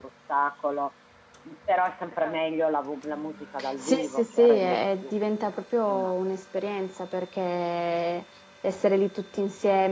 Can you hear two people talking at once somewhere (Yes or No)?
Yes